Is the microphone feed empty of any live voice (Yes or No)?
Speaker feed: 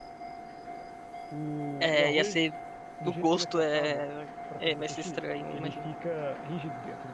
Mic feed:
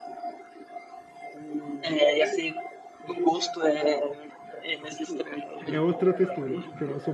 No